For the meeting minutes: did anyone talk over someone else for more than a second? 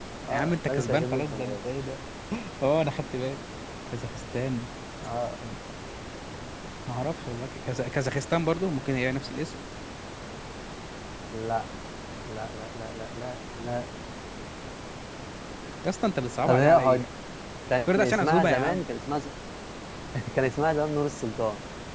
Yes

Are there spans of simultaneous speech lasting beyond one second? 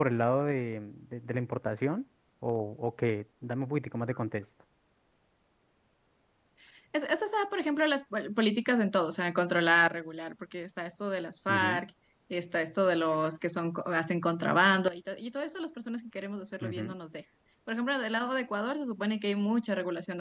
No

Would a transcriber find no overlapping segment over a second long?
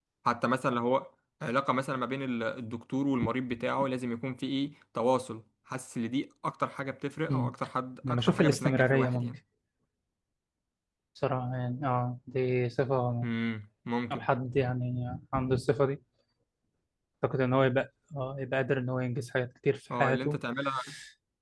No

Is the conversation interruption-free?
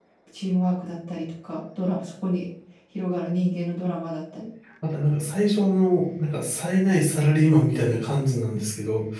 Yes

